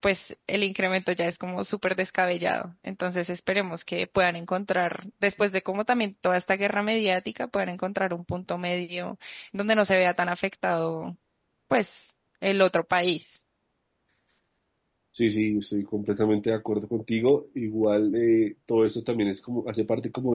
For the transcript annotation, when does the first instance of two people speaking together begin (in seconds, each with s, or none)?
none